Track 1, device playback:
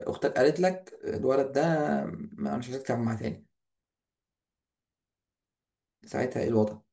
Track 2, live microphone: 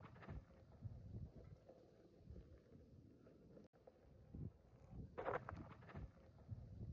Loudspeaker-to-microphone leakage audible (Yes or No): No